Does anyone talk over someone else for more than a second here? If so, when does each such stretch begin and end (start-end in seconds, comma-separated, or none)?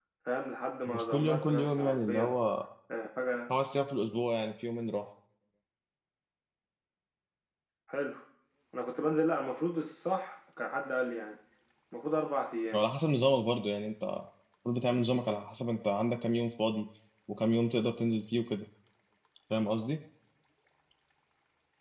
0.9-2.3